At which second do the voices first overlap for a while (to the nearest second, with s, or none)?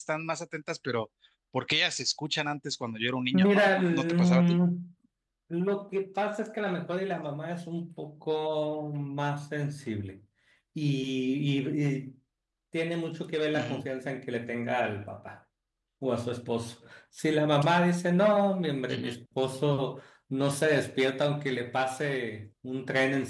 3 s